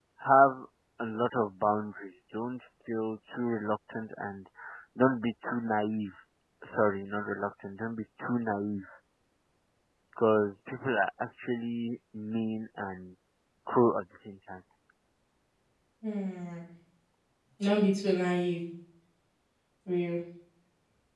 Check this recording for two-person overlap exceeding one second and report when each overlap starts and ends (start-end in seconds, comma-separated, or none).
none